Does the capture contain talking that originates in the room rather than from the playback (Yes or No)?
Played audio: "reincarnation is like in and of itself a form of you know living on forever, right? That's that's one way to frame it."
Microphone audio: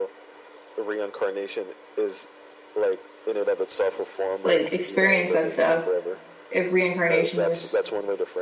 Yes